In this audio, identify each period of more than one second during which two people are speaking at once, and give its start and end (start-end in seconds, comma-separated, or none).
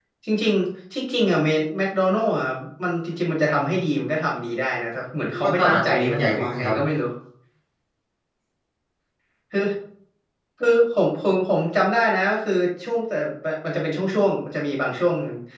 5.3-6.7